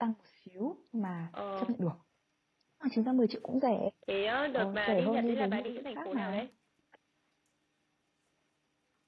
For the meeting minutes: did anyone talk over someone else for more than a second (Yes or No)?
Yes